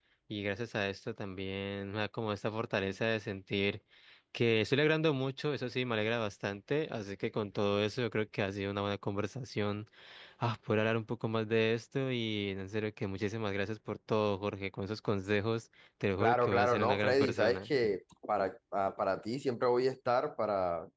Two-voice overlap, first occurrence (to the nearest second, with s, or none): 16 s